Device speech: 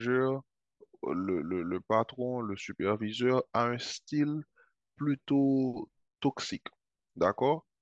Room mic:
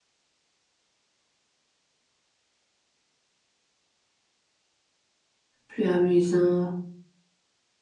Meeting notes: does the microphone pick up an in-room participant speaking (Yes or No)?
Yes